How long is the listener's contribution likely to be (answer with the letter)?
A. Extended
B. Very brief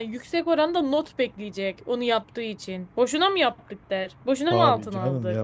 A